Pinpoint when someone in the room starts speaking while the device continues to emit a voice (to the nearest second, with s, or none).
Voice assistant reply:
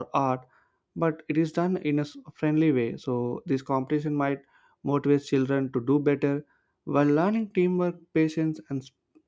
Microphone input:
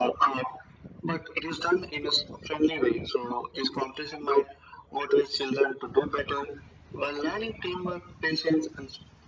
none